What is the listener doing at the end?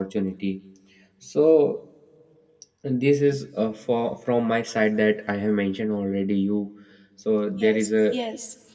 taking over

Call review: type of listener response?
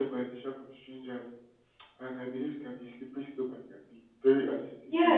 taking over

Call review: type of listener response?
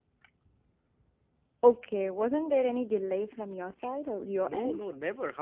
taking over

